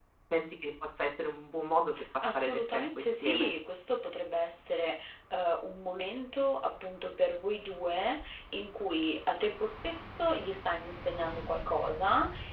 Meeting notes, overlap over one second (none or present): present